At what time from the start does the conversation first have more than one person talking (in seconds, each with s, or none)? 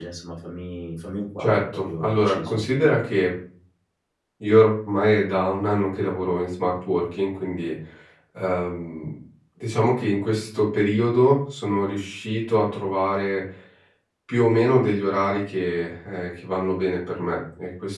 1.4 s